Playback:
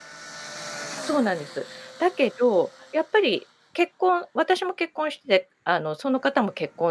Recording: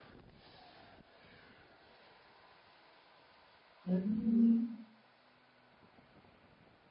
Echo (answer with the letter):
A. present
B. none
B